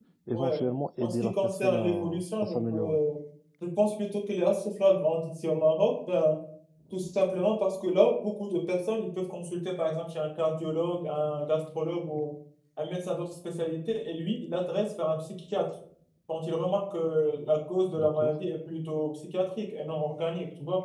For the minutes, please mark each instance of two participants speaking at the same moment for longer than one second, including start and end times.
1.0-3.0

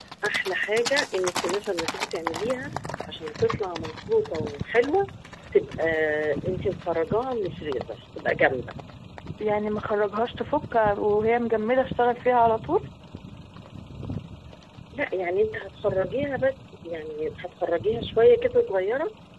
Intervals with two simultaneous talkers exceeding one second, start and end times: none

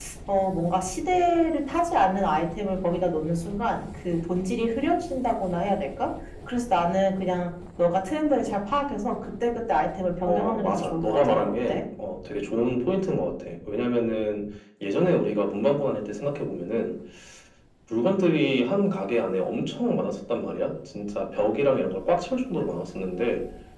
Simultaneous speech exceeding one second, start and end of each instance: 10.3-11.8

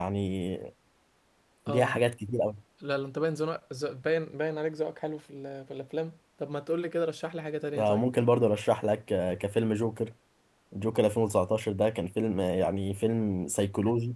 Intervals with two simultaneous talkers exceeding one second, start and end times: none

